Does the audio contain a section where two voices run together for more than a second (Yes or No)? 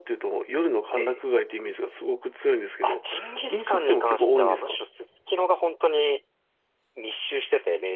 Yes